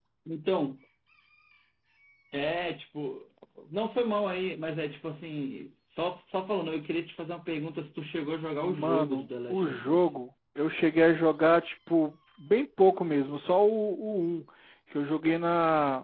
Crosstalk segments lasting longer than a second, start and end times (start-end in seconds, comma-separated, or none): 8.5-10.0